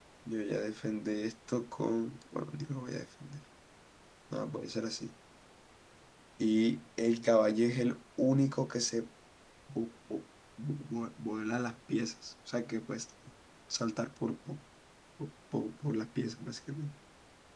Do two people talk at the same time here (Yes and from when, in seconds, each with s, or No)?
No